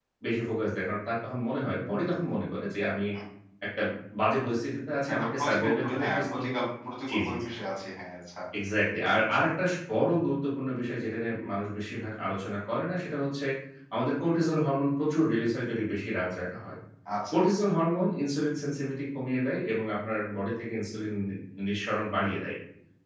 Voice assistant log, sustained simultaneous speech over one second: present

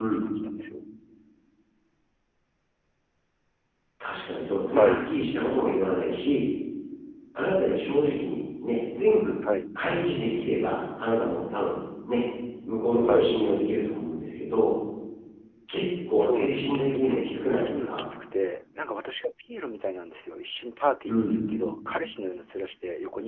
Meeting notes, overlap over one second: present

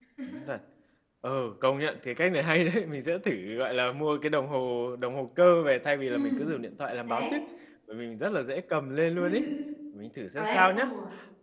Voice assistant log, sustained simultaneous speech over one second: none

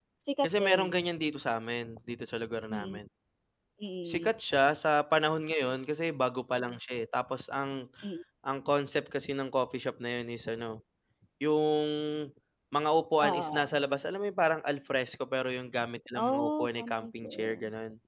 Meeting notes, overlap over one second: present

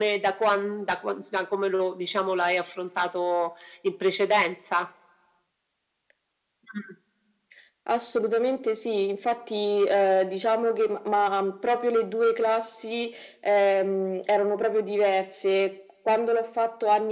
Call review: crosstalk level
none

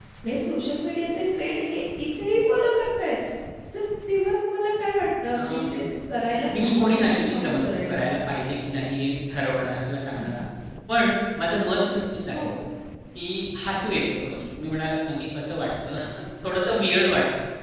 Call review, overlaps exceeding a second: present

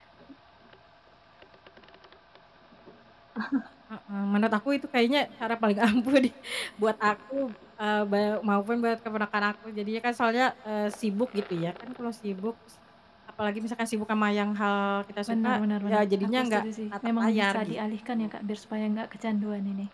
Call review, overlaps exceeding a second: present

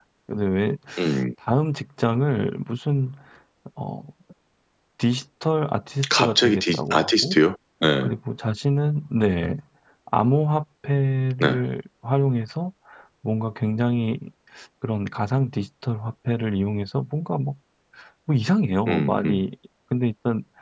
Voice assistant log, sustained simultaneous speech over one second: present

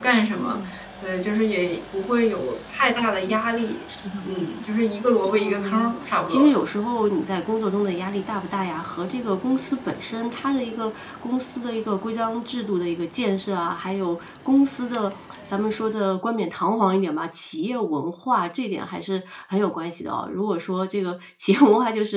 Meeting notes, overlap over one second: present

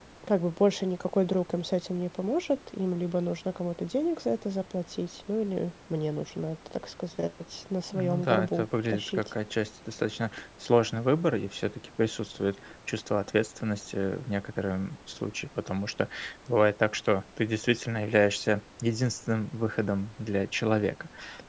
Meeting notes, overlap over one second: present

